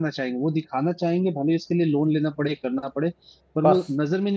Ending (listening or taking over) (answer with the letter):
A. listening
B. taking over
A